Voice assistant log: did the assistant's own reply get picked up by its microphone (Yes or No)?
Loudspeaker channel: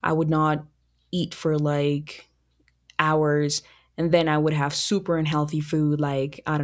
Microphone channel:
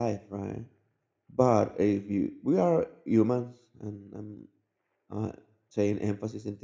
No